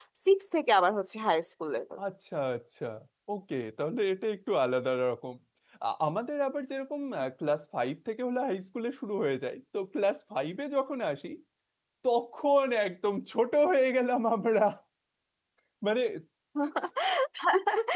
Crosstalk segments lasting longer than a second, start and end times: none

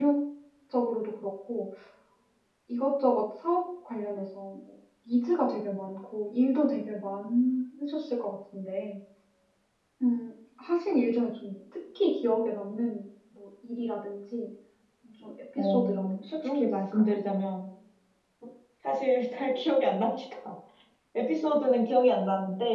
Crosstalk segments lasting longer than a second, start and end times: 15.6-17.2

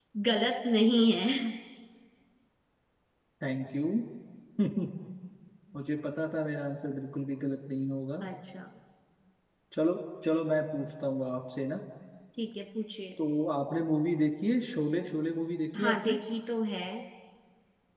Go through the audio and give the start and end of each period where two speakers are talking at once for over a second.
none

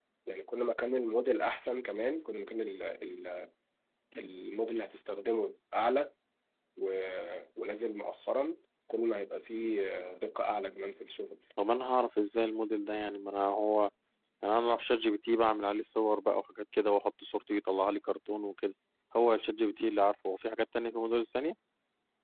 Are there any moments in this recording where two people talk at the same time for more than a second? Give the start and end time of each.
none

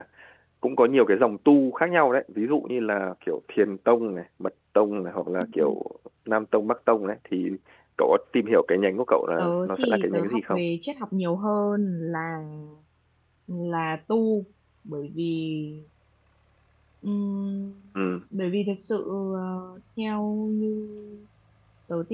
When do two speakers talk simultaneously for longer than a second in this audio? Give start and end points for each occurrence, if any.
9.4-10.6

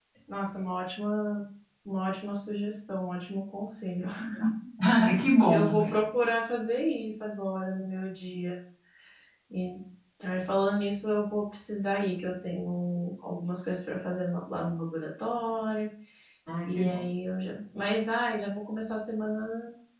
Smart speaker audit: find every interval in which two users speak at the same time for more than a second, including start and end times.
none

